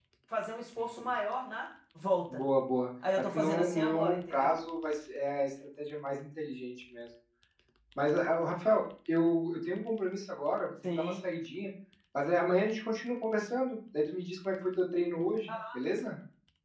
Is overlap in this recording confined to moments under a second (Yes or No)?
No